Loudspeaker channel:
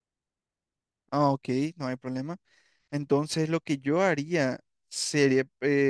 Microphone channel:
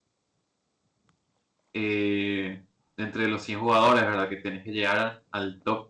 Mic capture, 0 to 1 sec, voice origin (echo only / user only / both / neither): neither